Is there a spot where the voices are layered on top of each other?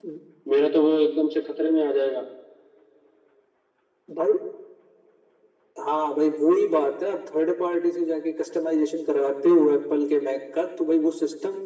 No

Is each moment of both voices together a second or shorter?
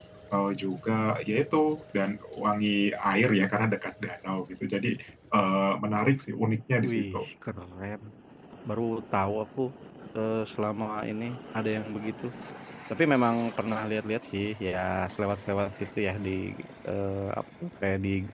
Yes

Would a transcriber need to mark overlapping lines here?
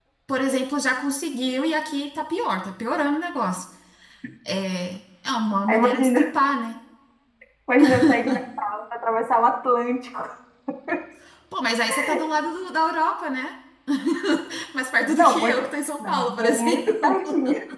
Yes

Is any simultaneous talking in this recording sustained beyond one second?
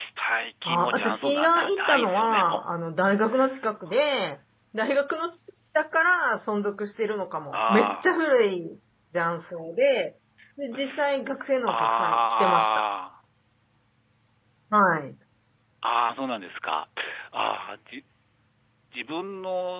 Yes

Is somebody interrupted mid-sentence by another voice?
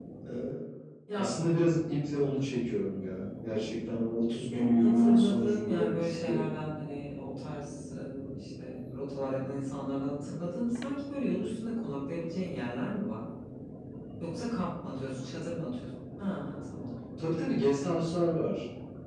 Yes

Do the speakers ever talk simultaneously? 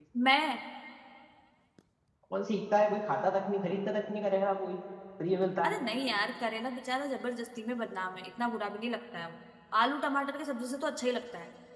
No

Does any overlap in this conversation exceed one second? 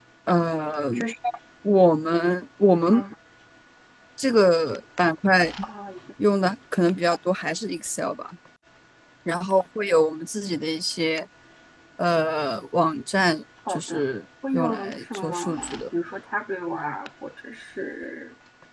Yes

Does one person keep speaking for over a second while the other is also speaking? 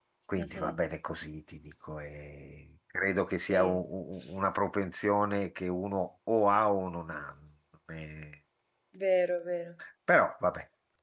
No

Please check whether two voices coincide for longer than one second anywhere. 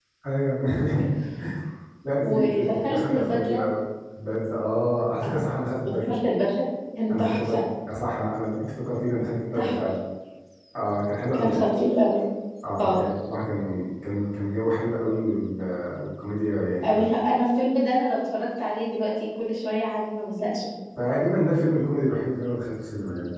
Yes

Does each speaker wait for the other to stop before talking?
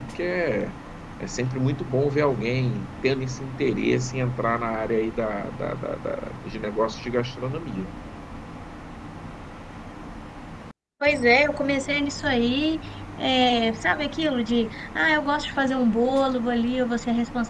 Yes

